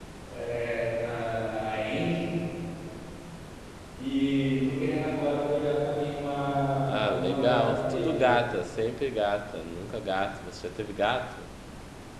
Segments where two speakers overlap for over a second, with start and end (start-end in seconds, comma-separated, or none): 6.8-8.3